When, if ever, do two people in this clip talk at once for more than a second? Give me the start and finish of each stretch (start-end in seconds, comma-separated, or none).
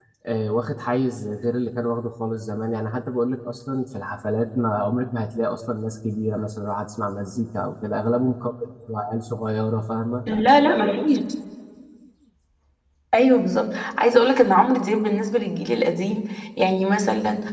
none